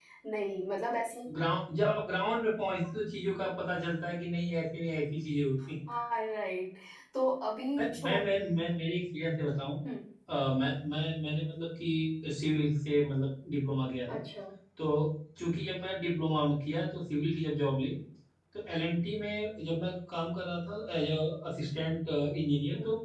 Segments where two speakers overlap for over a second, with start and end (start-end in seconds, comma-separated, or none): none